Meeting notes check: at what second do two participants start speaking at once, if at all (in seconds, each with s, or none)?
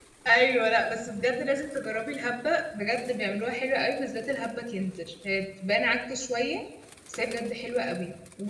none